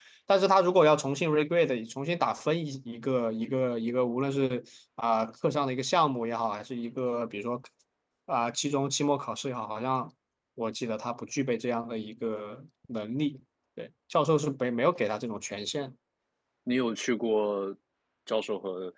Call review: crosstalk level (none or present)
none